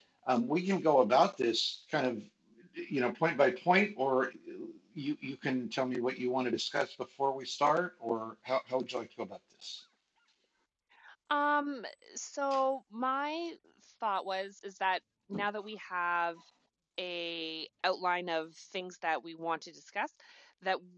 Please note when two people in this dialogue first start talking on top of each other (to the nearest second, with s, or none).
none